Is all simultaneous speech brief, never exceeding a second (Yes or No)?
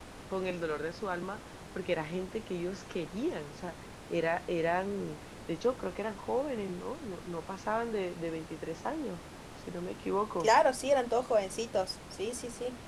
Yes